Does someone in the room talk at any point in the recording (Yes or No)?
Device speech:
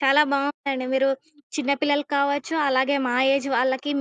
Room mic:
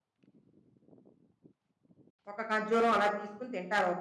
Yes